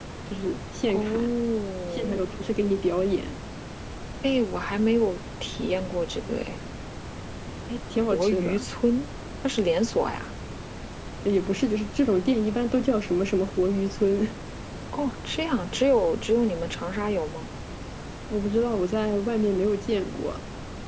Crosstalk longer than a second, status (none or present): none